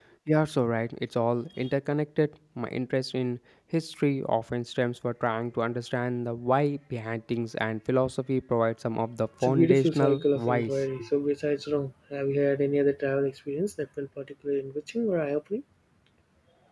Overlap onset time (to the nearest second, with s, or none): 9 s